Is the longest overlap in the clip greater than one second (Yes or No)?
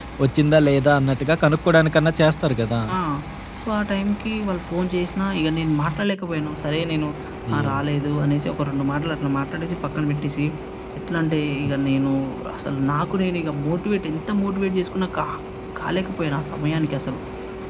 No